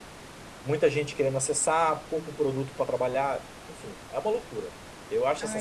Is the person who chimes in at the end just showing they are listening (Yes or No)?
No